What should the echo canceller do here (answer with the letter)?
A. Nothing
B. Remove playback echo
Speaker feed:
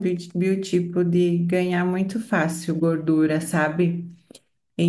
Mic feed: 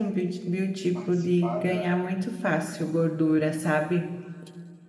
B